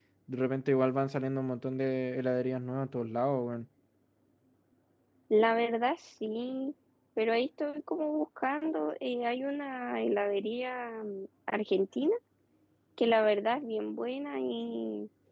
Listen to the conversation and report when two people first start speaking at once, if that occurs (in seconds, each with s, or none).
none